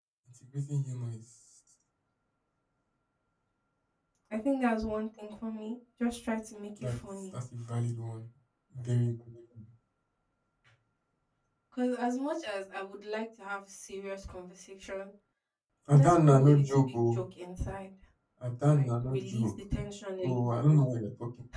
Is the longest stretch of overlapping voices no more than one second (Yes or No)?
No